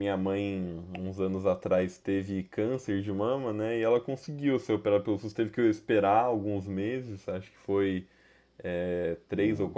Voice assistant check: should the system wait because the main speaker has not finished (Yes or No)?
Yes